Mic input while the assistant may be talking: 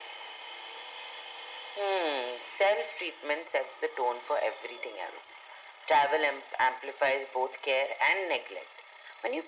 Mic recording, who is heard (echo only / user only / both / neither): echo only